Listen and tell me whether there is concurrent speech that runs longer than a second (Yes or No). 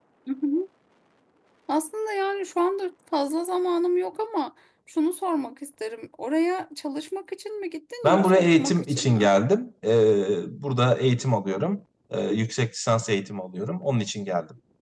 Yes